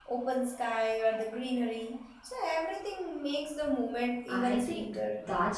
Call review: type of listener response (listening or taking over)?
taking over